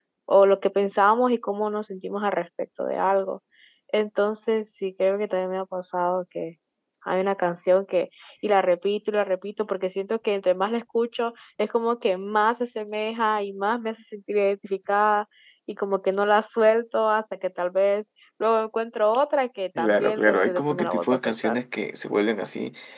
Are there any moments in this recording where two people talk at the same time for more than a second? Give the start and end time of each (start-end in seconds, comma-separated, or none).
19.8-21.6